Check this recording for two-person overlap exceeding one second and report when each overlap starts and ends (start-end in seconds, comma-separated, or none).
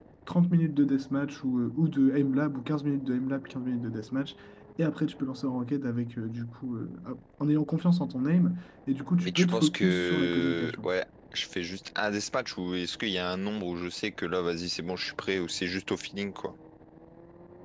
9.2-10.9